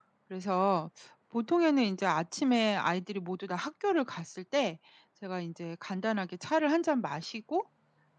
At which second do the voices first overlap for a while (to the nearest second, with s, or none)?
none